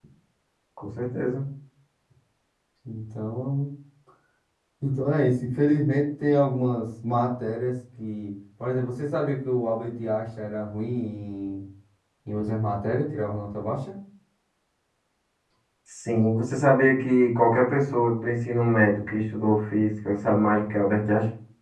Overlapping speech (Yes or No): No